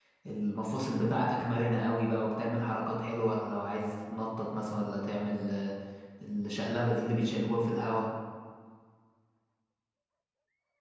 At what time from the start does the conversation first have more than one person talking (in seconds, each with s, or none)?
none